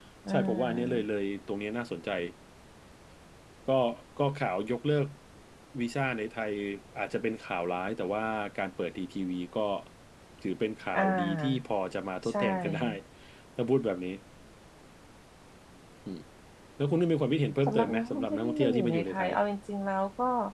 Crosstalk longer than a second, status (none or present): present